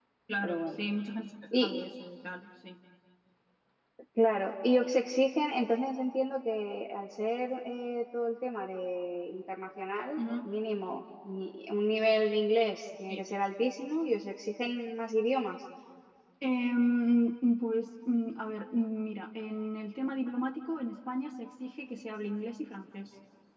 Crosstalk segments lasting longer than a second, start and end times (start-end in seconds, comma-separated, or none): none